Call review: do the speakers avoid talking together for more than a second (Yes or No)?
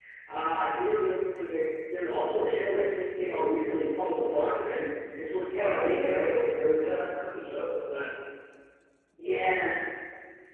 No